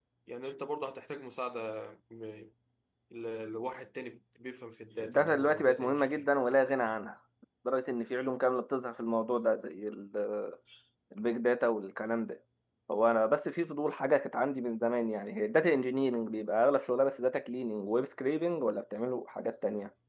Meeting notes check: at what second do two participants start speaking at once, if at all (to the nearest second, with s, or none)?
5 s